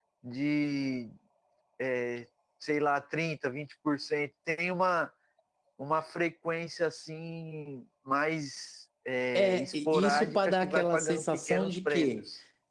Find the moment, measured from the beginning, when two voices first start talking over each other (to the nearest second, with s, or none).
9 s